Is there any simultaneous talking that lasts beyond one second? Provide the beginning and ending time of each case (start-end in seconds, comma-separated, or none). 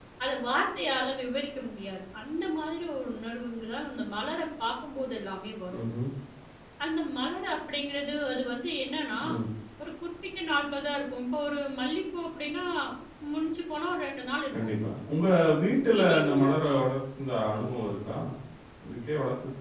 none